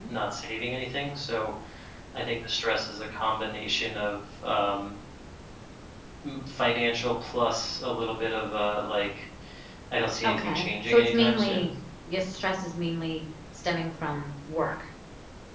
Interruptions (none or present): present